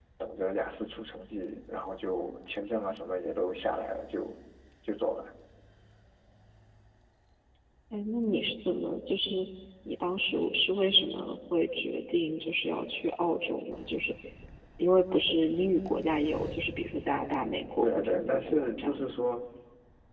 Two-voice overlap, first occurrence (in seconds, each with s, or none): 17.8 s